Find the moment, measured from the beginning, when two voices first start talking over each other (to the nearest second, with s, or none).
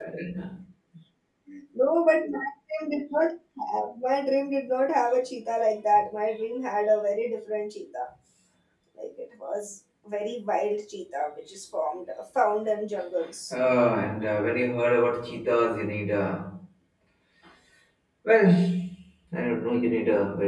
none